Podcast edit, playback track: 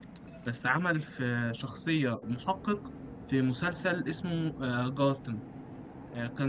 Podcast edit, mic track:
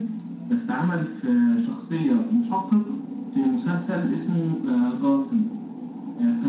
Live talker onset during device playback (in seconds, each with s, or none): none